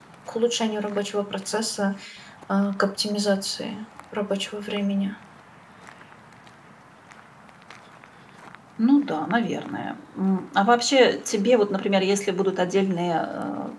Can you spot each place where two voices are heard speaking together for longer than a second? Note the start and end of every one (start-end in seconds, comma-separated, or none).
none